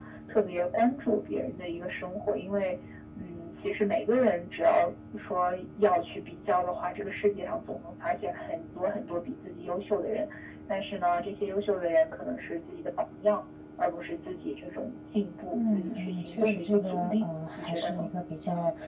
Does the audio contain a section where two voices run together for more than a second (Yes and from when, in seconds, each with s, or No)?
Yes, from 15.5 s